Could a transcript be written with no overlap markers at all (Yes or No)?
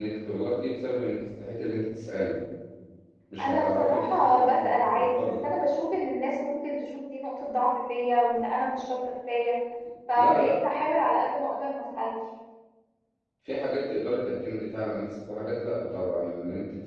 No